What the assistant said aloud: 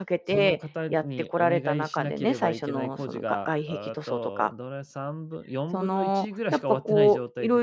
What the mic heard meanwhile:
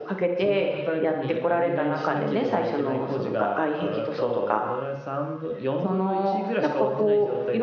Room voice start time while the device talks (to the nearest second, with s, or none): none